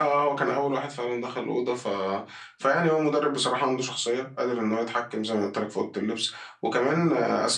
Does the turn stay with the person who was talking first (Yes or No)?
Yes